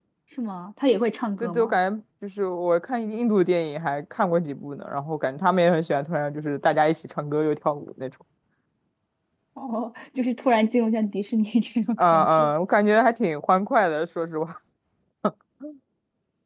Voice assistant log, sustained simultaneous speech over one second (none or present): none